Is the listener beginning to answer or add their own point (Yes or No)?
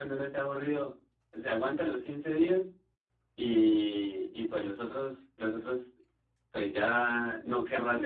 No